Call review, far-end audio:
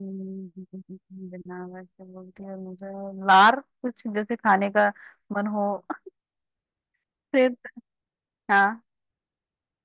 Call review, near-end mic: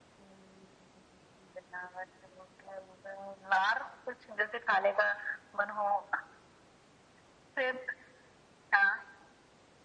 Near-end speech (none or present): none